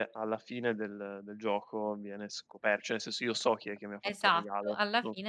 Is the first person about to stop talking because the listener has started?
Yes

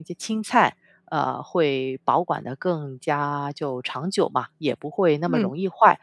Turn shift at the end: No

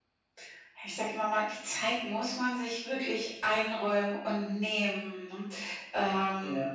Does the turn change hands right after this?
No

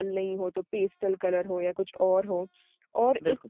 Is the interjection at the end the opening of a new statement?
No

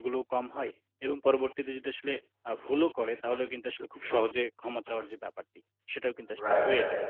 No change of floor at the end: No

